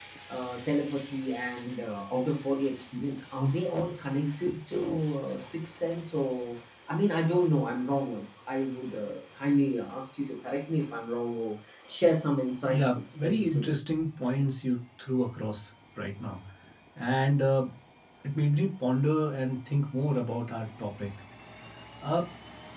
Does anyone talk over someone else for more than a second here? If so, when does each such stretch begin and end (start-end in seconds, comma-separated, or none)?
12.7-13.9